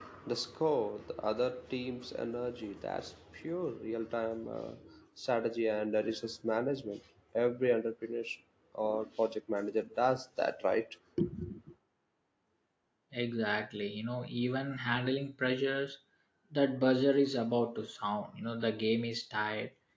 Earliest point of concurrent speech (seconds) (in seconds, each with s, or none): none